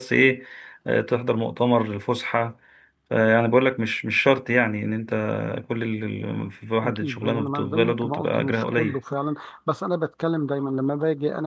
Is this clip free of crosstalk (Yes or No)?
No